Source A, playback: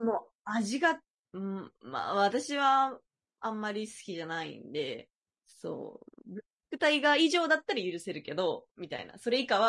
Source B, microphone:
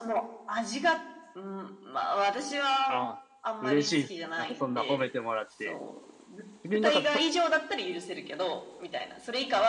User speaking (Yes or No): Yes